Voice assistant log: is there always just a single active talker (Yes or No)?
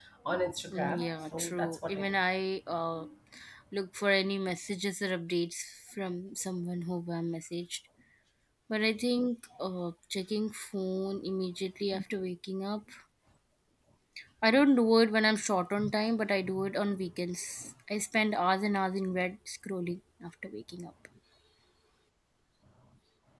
No